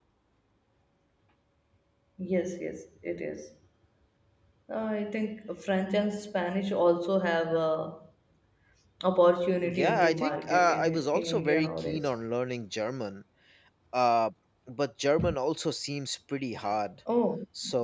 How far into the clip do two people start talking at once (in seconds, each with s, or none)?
9.7 s